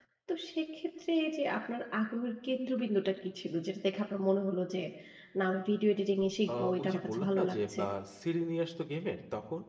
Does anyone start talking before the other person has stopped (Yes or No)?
Yes